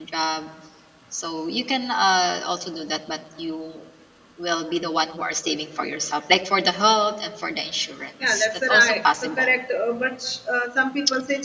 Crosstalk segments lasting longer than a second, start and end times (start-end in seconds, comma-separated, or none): 8.3-9.5